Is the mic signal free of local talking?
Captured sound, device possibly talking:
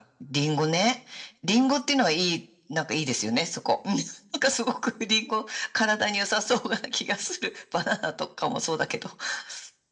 Yes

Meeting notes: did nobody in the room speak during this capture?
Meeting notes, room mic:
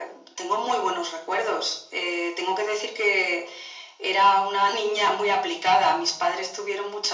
Yes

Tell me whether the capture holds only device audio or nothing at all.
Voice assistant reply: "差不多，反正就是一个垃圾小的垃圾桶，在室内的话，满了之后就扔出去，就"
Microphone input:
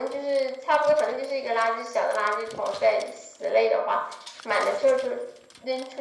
Yes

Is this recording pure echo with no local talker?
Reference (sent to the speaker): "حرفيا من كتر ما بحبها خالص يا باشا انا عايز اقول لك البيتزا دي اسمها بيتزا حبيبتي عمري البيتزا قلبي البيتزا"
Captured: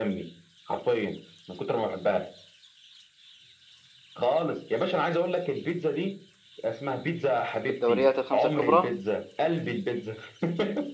No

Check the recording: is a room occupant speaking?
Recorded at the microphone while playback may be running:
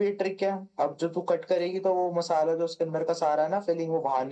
No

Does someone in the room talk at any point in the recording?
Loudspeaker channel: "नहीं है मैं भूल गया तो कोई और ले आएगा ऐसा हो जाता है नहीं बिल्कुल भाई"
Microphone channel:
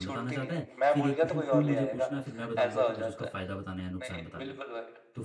Yes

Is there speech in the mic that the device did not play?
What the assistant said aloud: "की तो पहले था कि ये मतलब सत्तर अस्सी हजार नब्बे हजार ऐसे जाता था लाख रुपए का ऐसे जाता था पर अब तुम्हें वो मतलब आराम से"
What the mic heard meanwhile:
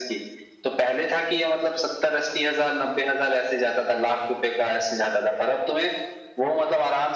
No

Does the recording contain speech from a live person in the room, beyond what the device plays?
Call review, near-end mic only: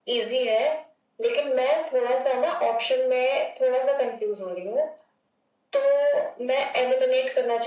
No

